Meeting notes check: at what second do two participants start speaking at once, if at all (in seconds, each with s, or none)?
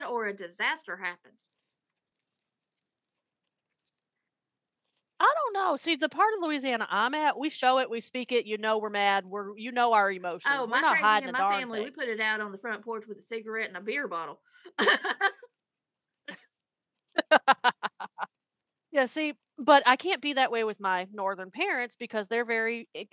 10.4 s